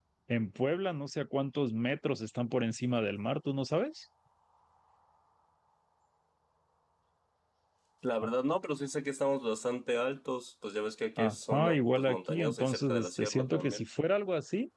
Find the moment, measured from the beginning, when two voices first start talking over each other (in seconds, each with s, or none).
11.2 s